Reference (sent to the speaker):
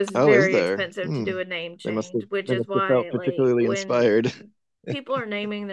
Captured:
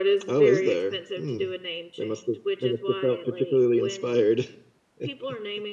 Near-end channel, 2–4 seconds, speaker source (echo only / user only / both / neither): echo only